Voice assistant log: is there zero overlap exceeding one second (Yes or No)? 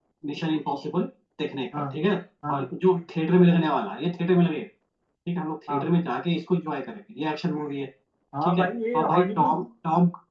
No